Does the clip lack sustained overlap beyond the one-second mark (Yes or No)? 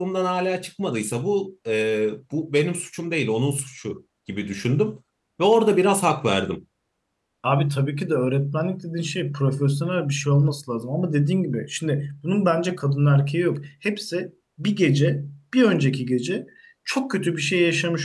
Yes